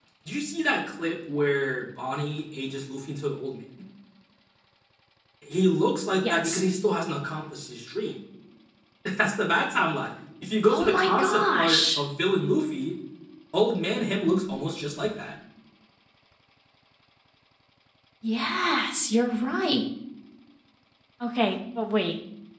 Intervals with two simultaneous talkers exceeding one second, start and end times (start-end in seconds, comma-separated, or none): 10.7-12.0